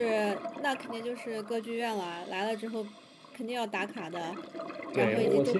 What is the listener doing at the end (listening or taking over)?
taking over